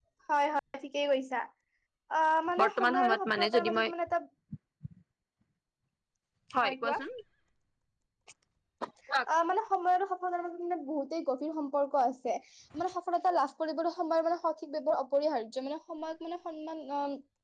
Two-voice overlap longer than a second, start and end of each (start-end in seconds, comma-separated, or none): 2.6-3.9